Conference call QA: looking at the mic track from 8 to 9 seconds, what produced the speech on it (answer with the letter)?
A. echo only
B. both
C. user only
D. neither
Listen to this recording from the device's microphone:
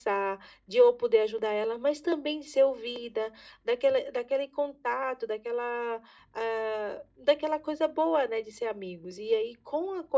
A